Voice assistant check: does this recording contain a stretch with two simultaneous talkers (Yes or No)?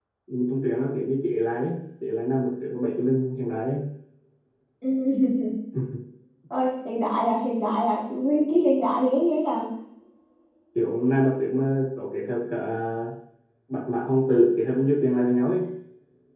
No